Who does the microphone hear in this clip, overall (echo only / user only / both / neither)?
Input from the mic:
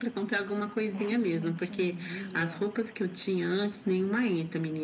both